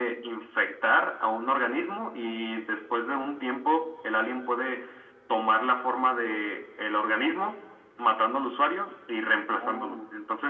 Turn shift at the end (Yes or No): No